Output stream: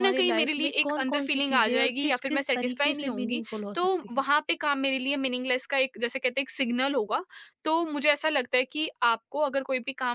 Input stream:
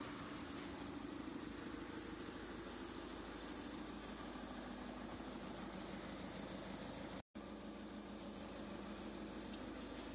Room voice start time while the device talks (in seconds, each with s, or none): none